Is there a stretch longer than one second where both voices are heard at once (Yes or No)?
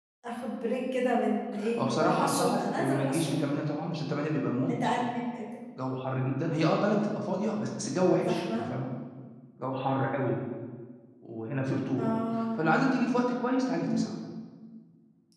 Yes